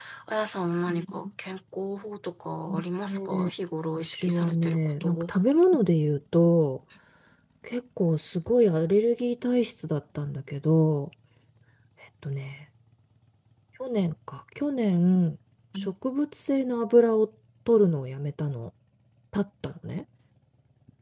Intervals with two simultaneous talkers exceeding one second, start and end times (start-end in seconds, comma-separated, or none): 4.0-5.3